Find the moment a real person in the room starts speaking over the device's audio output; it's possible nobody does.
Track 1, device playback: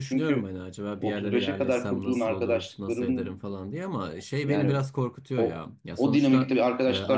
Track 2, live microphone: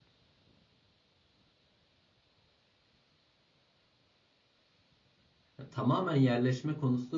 5.6 s

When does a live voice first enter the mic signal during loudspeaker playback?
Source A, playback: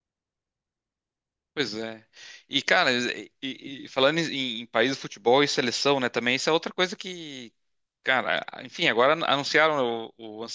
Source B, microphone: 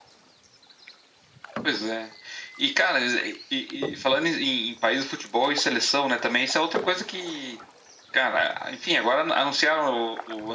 none

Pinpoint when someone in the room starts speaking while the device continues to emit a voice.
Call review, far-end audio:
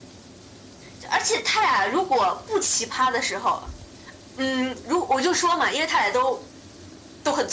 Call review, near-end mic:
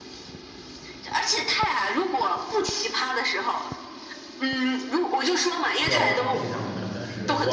5.7 s

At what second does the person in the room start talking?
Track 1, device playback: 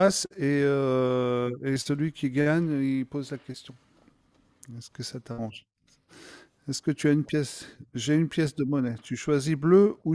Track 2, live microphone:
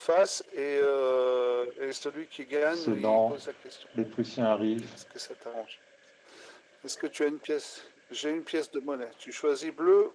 2.7 s

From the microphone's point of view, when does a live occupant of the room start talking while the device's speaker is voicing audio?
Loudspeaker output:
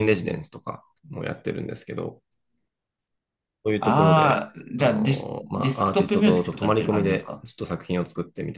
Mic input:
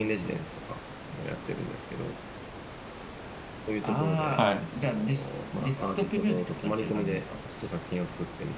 4.3 s

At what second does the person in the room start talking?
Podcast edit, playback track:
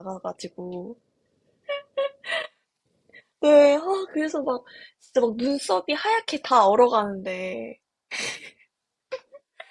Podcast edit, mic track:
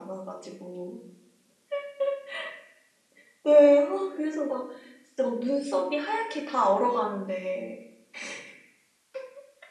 none

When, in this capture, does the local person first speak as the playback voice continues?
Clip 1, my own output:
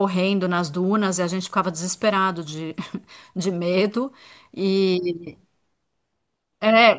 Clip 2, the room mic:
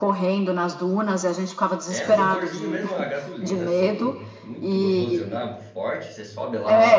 1.9 s

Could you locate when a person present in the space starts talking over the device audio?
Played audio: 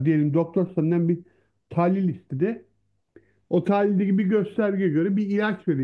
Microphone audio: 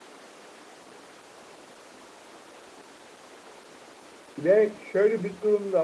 4.4 s

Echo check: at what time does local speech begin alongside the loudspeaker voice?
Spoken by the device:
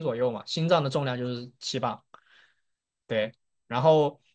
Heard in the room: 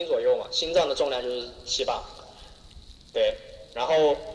none

